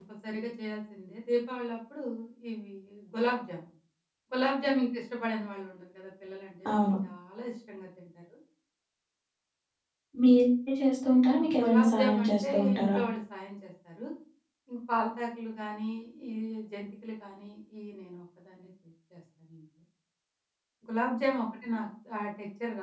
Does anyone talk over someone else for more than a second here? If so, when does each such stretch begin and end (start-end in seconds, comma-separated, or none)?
11.4-13.0